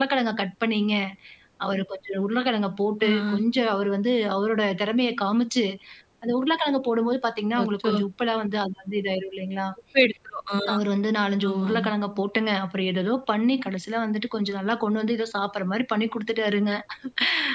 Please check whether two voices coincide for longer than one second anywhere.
No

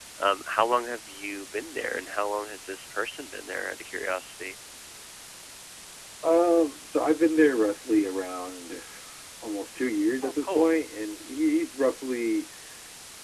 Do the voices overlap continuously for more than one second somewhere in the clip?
No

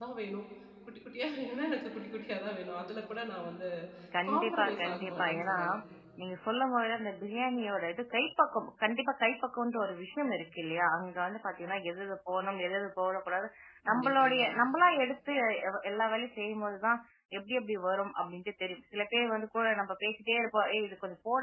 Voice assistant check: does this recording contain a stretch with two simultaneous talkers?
Yes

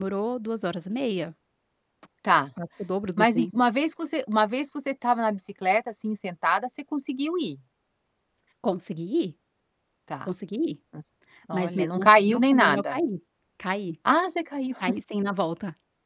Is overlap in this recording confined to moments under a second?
No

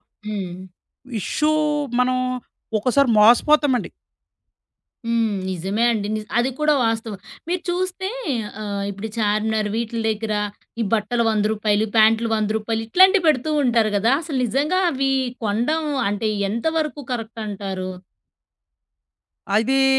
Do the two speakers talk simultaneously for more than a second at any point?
No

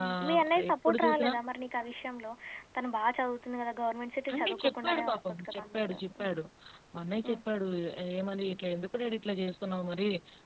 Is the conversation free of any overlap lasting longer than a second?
No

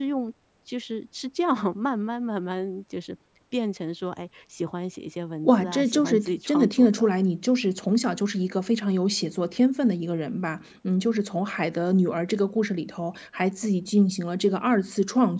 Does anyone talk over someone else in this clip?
Yes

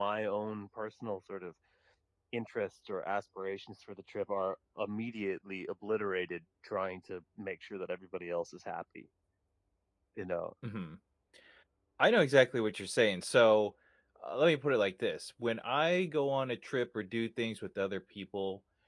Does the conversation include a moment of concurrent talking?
No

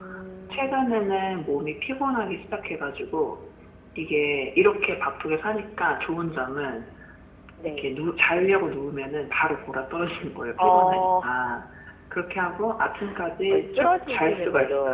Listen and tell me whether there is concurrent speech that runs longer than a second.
Yes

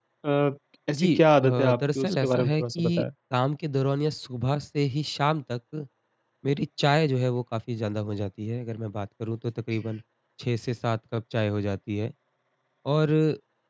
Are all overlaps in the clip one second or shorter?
No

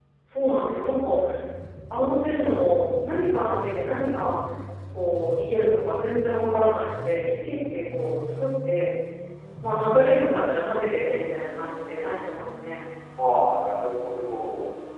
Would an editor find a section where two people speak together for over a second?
No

